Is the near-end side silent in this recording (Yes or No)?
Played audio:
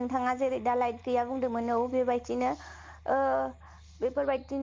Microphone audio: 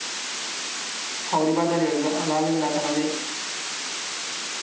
No